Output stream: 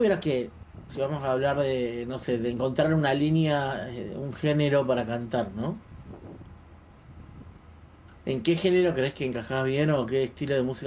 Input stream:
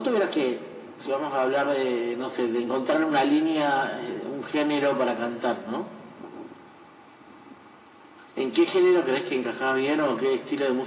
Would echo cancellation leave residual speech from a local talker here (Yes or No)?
No